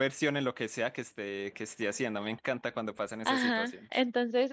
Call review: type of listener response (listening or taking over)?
taking over